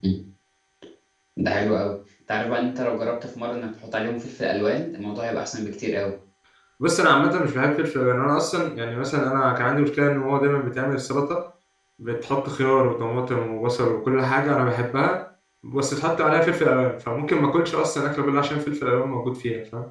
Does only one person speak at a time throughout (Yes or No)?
Yes